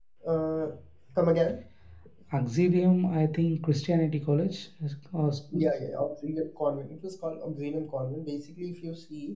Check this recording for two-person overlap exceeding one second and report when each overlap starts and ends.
none

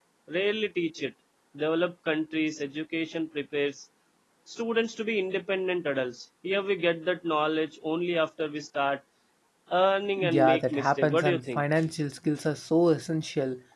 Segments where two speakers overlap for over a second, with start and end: 10.2-11.6

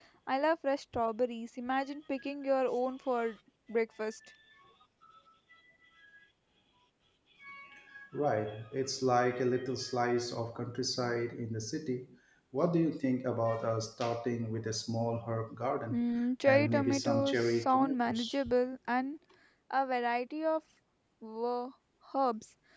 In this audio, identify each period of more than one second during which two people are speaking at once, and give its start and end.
16.4-18.4

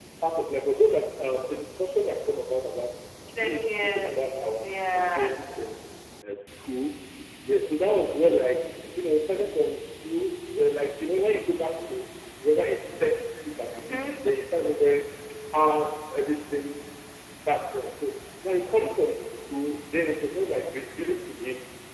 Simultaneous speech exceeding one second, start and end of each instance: 3.4-5.3

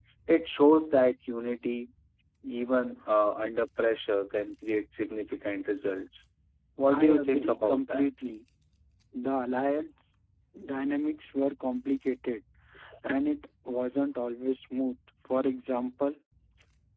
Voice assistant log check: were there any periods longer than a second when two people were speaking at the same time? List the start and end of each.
6.9-8.1

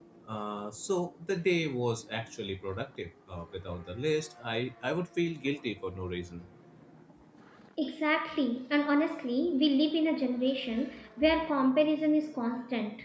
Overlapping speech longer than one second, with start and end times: none

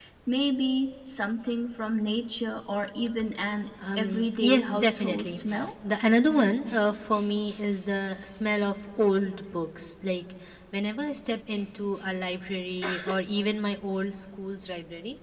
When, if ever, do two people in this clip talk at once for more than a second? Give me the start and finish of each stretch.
4.0-5.4

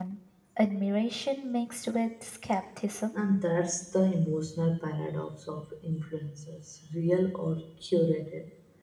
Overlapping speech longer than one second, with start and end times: none

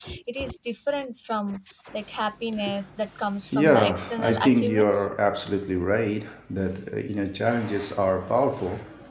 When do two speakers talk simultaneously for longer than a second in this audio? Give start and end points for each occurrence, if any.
3.5-5.1

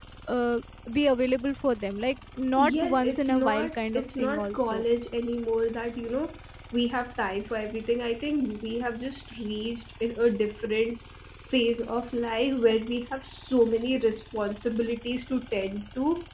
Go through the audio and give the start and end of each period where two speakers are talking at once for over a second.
2.6-4.8

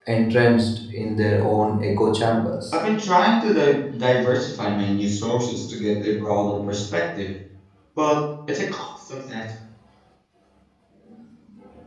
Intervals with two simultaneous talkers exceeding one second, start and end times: none

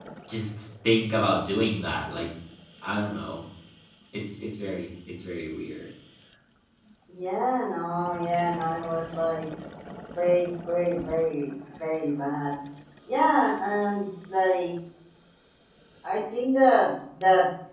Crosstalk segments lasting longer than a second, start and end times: none

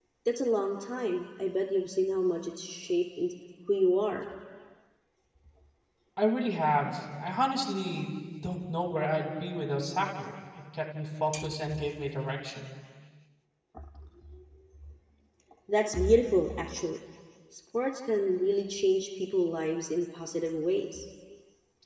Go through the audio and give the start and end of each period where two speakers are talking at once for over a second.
none

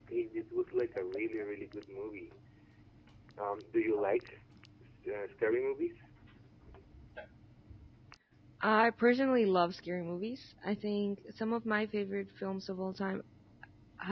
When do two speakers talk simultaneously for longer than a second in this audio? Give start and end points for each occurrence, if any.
none

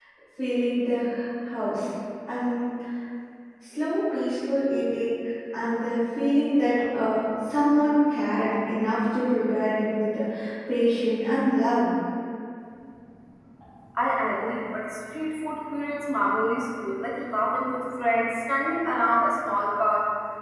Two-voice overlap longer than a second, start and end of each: none

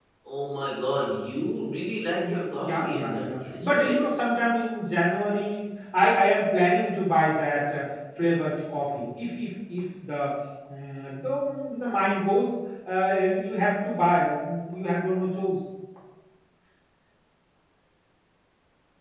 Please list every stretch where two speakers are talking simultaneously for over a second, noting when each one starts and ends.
2.2-4.0

